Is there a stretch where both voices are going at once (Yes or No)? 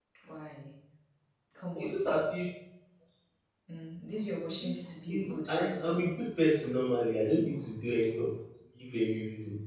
Yes